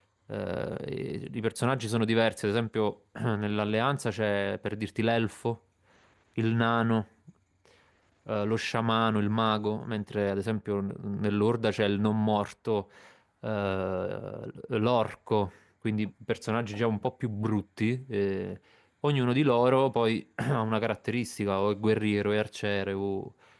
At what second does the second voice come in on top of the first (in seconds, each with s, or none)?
none